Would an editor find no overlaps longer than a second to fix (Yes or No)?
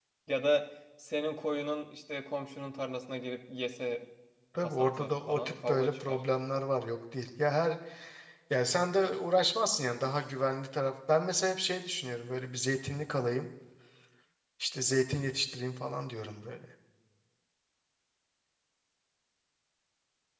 No